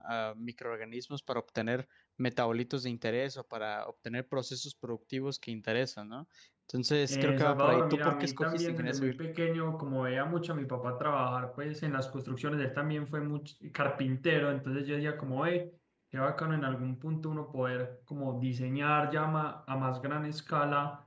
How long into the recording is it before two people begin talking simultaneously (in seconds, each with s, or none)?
7.1 s